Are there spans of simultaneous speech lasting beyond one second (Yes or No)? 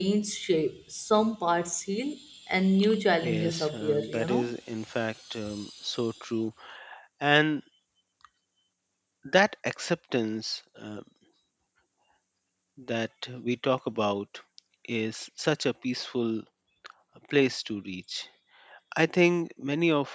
Yes